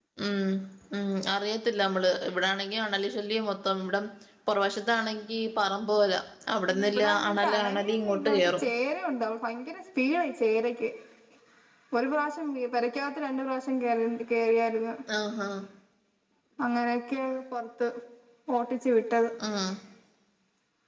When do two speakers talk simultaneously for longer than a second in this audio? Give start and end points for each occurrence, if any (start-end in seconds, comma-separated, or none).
6.9-8.7